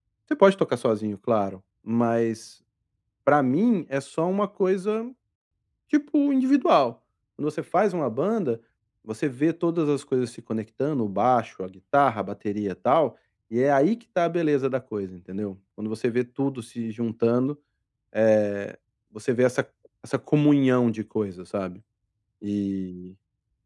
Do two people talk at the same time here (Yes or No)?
No